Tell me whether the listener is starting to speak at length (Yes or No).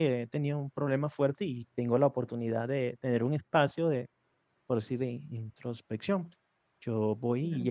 No